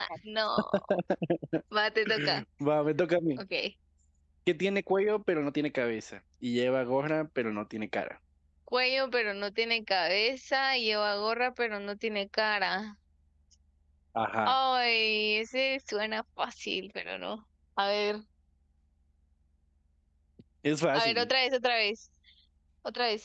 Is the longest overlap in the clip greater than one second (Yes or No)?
No